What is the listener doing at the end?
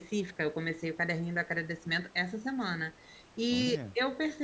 listening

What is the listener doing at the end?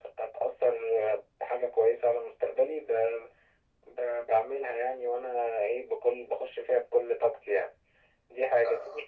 listening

